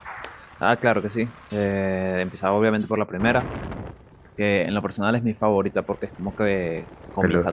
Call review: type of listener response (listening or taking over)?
listening